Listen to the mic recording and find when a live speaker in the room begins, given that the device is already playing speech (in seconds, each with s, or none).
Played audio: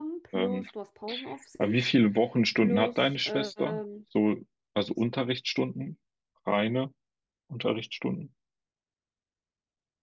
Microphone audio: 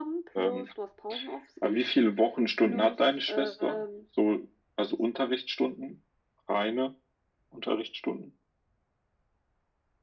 none